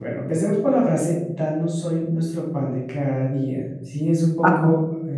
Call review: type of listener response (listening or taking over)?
listening